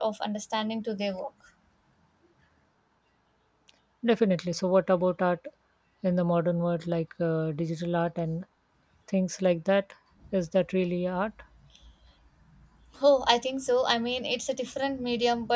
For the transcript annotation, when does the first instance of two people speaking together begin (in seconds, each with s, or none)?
none